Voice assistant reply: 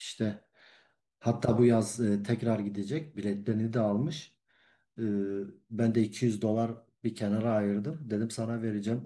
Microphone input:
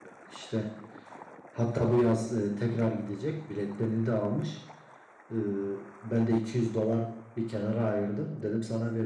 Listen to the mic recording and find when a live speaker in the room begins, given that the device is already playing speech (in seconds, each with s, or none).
none